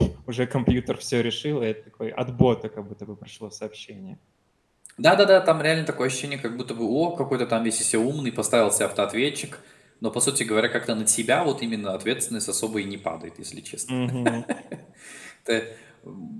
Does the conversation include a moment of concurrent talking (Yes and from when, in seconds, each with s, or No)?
No